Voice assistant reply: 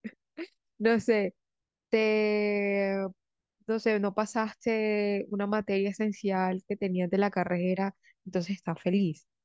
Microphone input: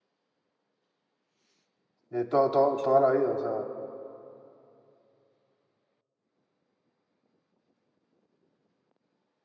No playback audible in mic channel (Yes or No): Yes